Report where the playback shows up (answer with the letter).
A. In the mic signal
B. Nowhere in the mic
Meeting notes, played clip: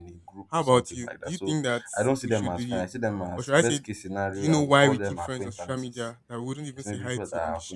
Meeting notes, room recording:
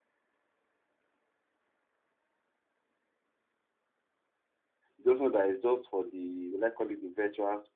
B